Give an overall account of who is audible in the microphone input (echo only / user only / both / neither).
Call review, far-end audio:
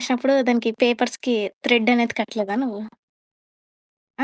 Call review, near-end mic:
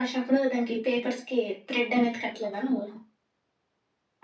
echo only